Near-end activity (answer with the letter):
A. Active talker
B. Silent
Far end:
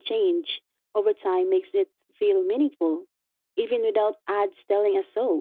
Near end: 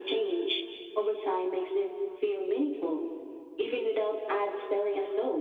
B